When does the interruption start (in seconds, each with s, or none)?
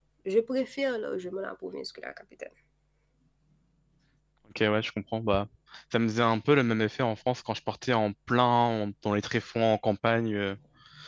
none